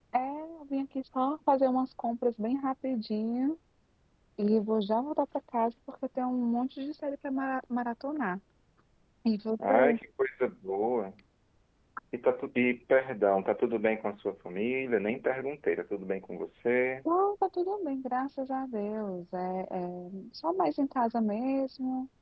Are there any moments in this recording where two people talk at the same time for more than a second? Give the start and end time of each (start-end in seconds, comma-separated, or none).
none